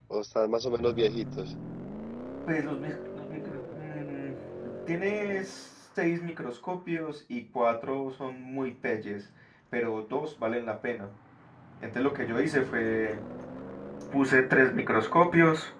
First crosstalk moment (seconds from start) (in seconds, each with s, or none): none